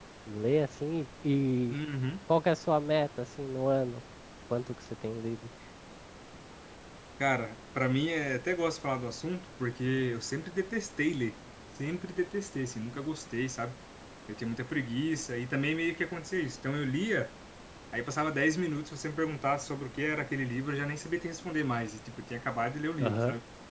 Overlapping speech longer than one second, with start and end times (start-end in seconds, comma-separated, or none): none